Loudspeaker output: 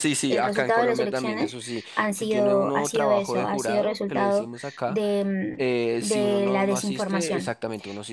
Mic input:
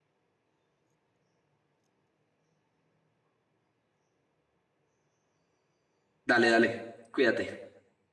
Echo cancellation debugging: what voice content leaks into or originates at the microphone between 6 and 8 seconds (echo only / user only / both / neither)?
user only